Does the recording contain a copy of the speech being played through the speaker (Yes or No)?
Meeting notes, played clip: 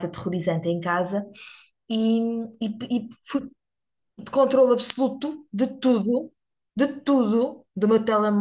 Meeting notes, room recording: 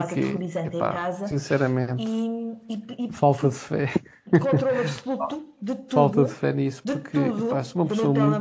Yes